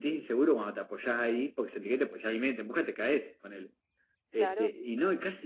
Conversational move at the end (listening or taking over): listening